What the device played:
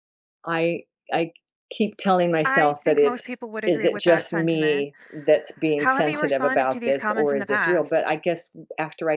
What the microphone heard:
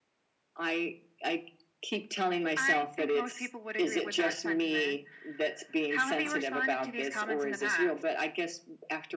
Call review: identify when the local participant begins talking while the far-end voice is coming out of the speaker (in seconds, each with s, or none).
none